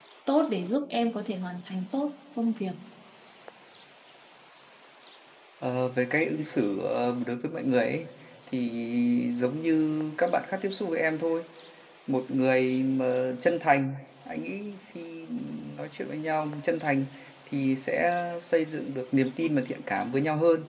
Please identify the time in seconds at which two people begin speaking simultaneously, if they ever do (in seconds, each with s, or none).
none